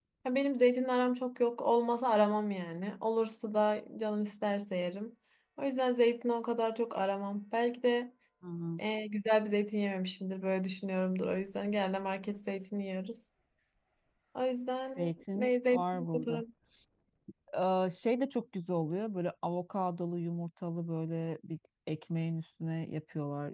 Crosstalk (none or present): present